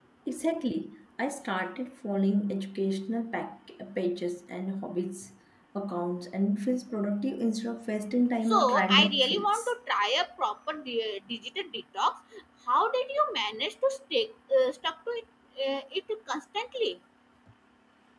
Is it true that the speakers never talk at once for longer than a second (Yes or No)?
No